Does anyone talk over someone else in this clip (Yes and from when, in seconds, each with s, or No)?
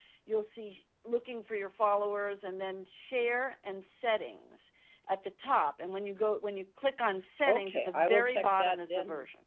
Yes, from 7.5 s